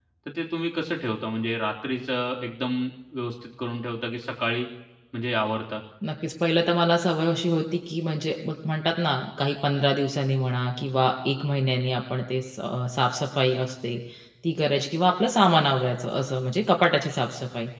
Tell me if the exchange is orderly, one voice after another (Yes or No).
Yes